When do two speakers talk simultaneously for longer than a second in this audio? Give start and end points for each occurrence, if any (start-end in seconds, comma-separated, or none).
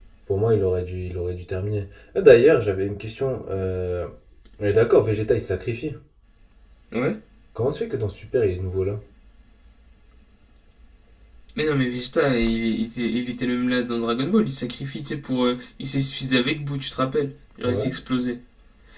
none